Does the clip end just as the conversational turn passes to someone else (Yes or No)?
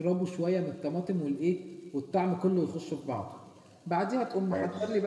No